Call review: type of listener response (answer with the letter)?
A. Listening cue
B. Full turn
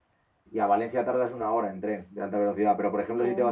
A